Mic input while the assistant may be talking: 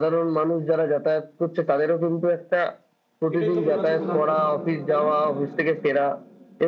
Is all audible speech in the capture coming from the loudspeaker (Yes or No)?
No